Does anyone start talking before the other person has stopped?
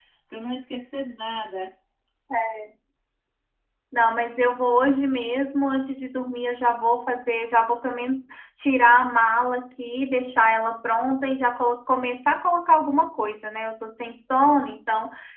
No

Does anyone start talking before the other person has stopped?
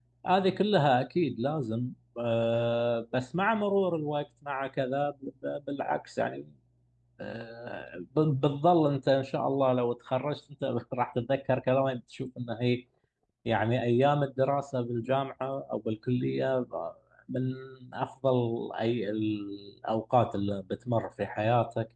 No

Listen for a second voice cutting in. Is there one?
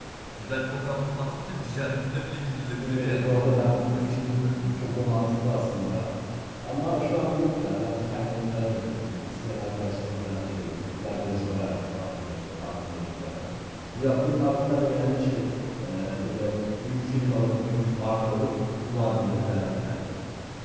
Yes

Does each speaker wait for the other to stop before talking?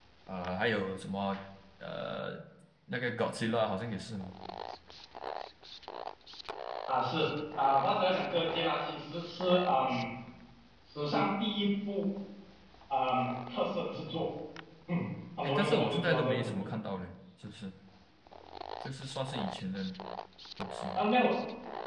No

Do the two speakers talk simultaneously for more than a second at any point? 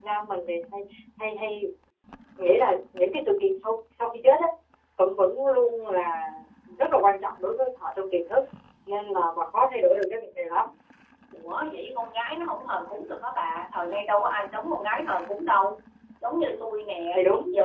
No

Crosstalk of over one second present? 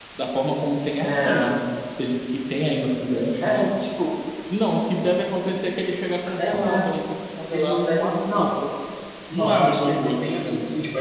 Yes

